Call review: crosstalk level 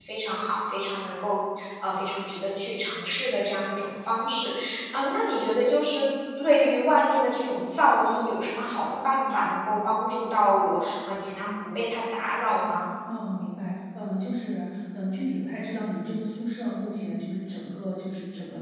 none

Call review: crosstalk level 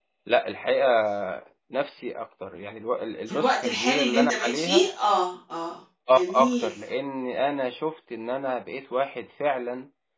present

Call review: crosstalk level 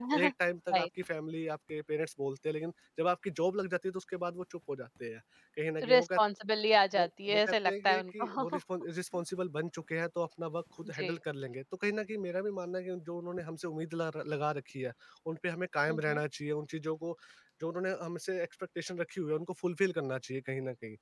present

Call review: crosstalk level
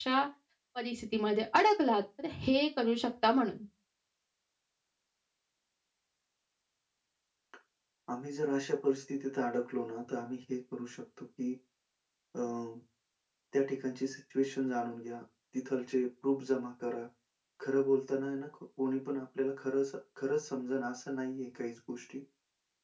none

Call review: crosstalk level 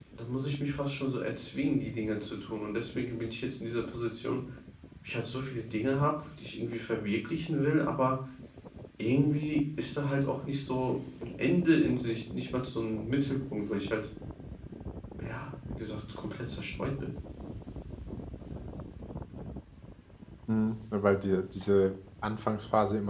none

